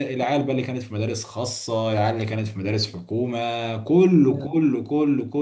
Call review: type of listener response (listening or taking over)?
listening